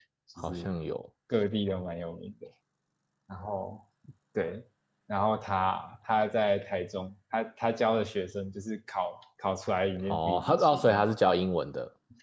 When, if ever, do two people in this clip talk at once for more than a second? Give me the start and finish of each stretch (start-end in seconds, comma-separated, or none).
10.1-11.3